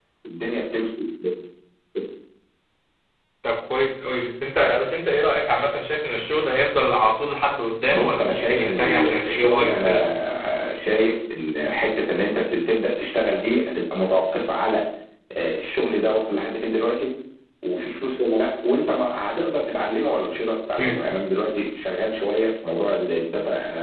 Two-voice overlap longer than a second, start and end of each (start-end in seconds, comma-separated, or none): 7.9-10.0